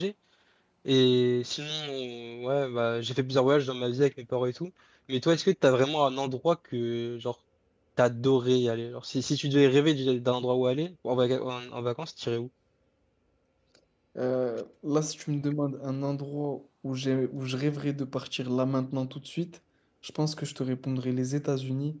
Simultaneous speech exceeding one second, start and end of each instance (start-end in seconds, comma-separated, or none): none